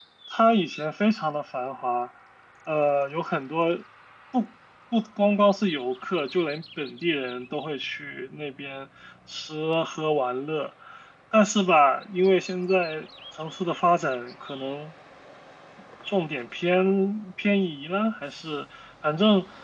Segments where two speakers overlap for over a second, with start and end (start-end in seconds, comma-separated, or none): none